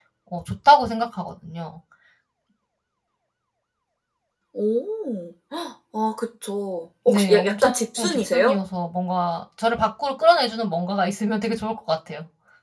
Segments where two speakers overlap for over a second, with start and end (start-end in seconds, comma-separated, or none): 7.1-8.6